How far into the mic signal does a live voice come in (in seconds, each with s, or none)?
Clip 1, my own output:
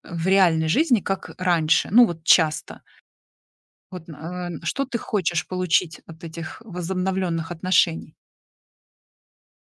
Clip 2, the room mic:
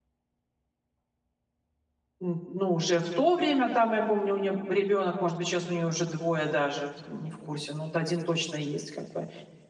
2.2 s